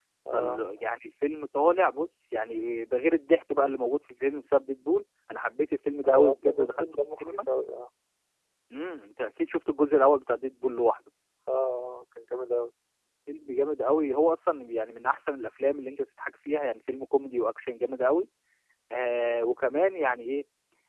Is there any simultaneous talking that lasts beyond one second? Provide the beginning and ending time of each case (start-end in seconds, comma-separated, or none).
6.0-7.4